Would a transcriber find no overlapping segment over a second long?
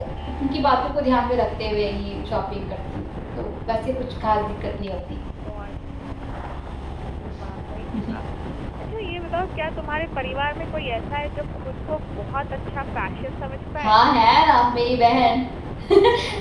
Yes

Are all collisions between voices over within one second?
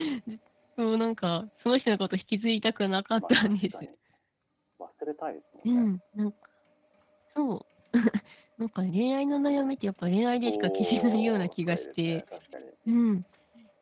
No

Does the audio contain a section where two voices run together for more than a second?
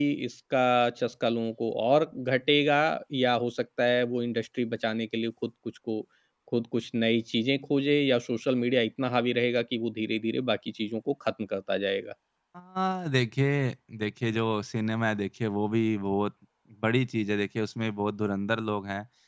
No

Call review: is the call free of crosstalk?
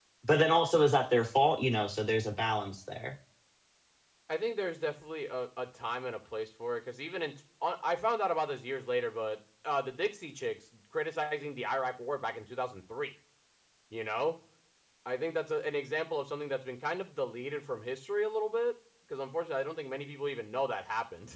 Yes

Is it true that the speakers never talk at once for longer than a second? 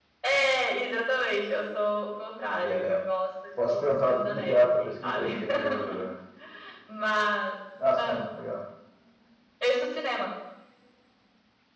No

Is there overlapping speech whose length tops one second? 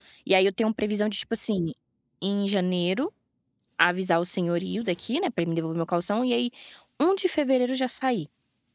No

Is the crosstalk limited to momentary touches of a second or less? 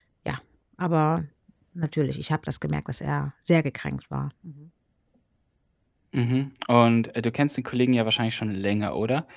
Yes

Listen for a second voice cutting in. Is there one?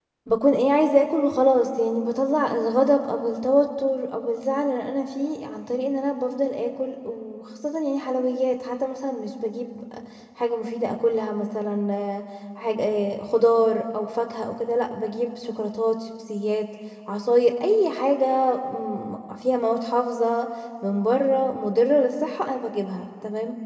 No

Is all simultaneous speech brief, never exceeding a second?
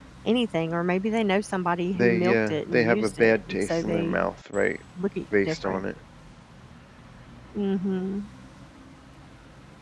No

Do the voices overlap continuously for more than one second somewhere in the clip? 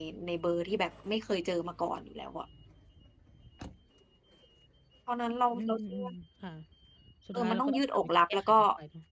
Yes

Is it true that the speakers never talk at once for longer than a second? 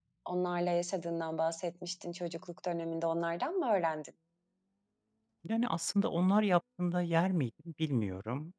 Yes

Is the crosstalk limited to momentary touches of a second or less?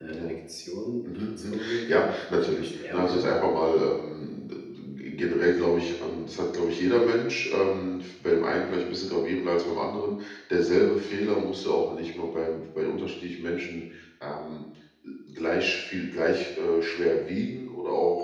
No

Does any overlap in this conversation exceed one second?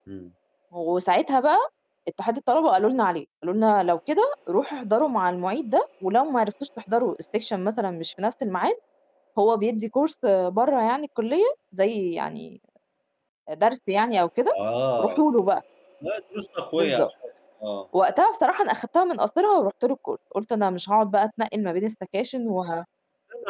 No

